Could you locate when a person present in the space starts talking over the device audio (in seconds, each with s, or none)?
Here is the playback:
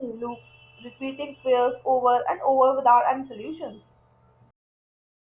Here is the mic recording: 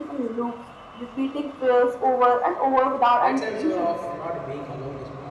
3.2 s